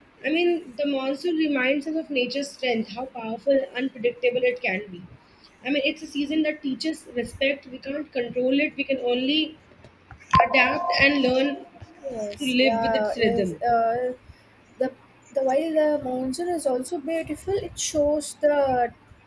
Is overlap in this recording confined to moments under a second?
No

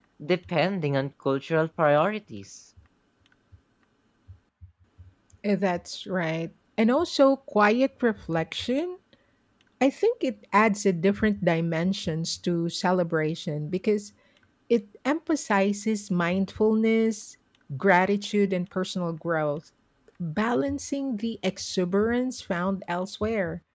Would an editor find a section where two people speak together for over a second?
No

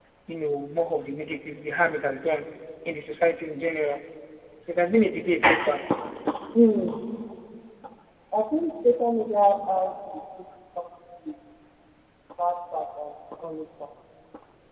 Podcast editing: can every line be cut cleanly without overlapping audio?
Yes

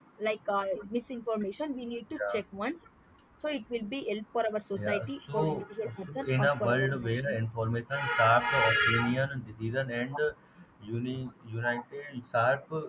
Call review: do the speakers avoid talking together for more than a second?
No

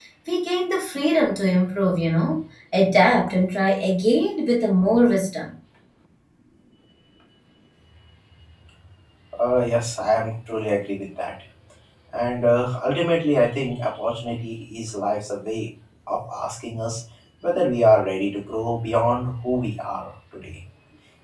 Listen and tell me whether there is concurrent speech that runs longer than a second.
No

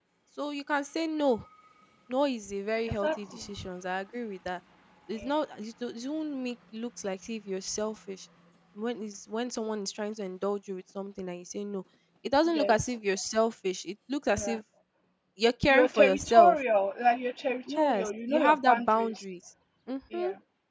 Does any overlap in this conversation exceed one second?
Yes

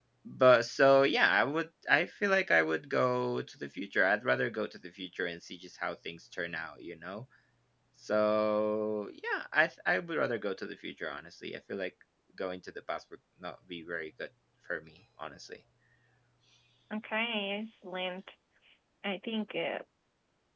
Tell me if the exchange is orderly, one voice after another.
Yes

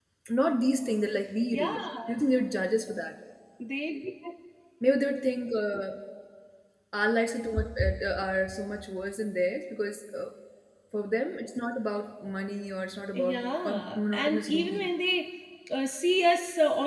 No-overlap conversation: No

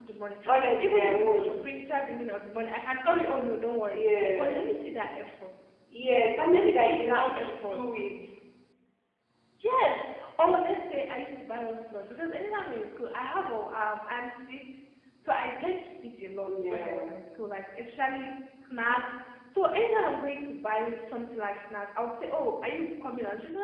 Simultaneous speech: Yes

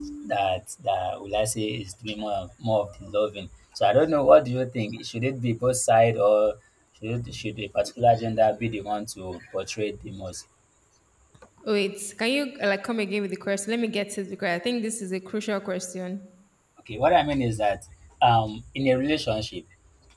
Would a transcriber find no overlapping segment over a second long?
Yes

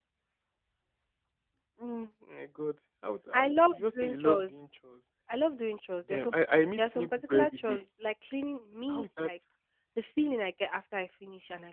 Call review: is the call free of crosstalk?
No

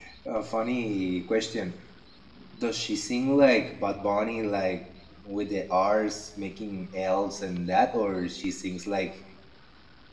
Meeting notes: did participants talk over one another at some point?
No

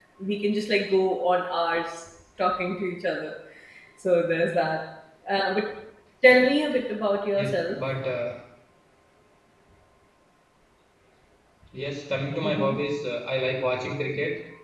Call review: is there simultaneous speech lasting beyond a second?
No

